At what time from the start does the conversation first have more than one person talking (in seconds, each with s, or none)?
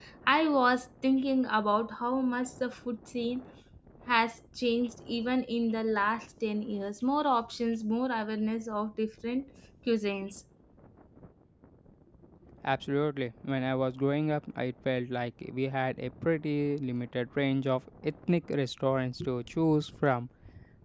none